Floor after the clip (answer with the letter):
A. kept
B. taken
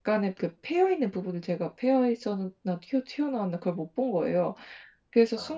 A